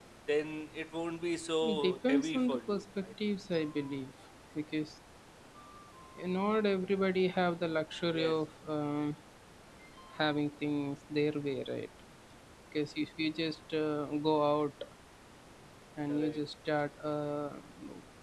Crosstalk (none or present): present